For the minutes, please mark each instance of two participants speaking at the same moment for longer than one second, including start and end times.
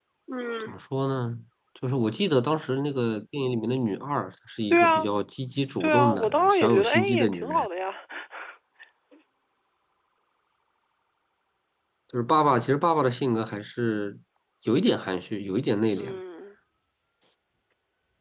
5.8-7.7

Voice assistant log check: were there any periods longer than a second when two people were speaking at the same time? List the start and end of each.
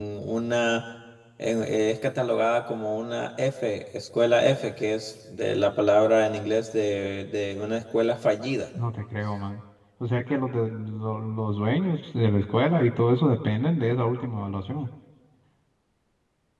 none

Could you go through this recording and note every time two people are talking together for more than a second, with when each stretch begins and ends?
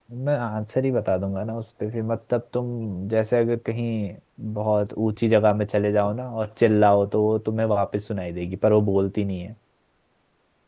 none

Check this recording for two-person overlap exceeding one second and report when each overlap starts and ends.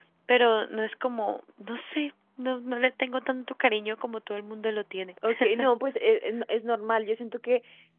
none

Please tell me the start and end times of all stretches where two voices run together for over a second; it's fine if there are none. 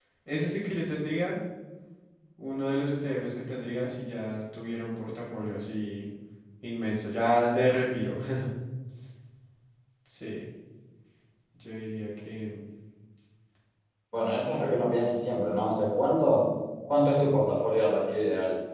none

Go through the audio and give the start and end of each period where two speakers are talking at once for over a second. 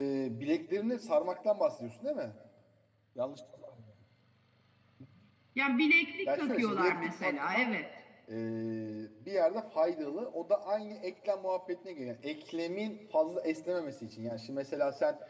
6.2-7.7

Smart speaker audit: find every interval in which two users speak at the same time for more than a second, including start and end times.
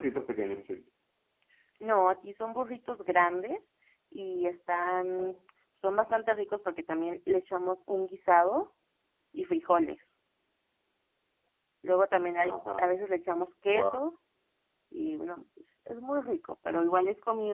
none

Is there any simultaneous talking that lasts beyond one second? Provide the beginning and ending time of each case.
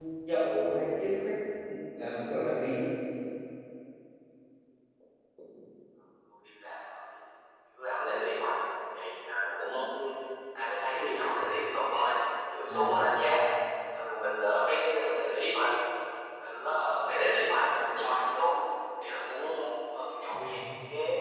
none

